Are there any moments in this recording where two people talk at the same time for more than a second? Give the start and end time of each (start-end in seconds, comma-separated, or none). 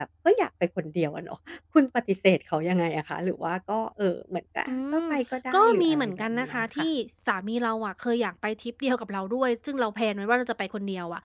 5.5-6.8